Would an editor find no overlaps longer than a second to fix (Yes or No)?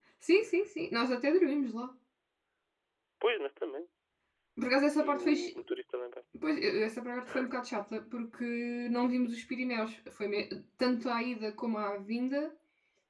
Yes